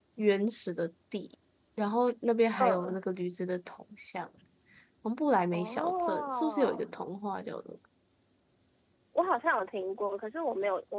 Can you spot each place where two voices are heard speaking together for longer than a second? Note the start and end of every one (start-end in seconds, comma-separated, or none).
5.5-6.8